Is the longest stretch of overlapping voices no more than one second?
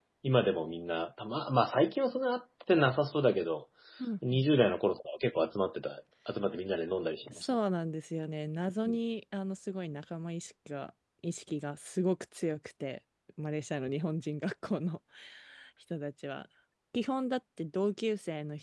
Yes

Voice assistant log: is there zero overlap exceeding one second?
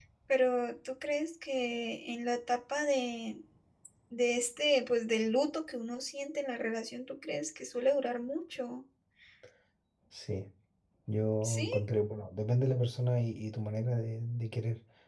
Yes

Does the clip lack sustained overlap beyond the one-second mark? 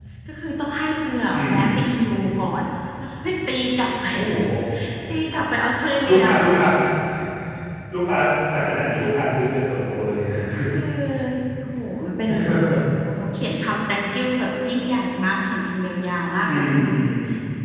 Yes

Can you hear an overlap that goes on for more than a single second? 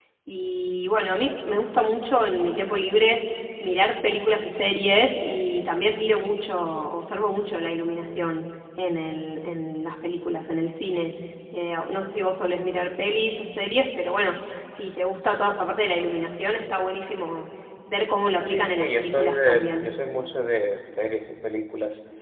Yes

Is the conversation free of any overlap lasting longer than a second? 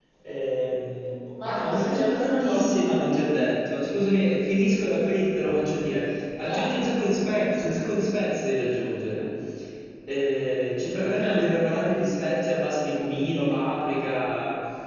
No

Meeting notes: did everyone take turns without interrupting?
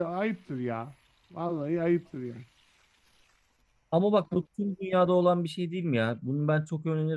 Yes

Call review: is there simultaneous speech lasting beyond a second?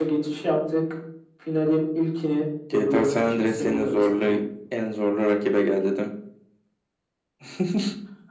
Yes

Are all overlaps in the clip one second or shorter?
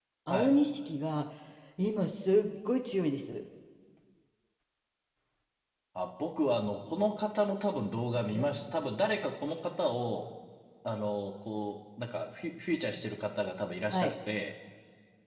Yes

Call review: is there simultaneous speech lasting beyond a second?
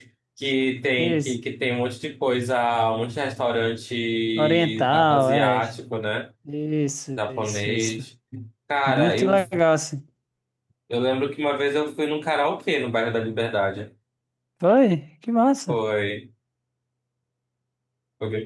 Yes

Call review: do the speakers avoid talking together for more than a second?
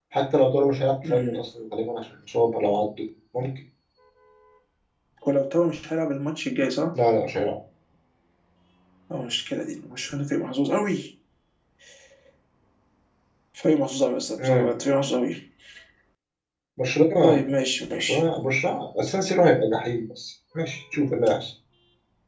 Yes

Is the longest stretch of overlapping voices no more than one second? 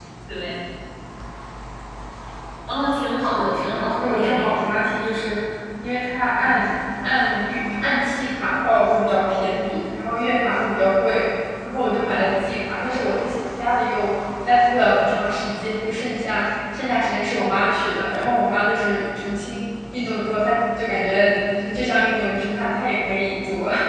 No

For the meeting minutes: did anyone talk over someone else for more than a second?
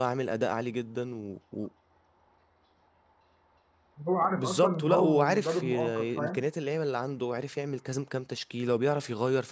Yes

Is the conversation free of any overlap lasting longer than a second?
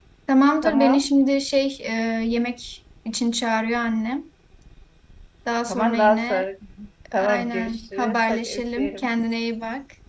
No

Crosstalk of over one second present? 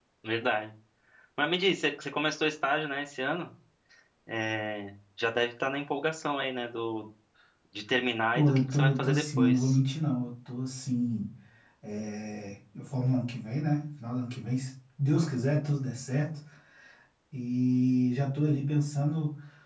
Yes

